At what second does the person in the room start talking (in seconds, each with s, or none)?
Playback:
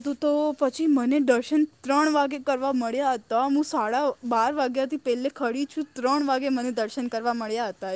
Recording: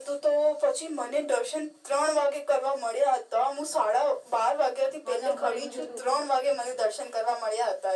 5.1 s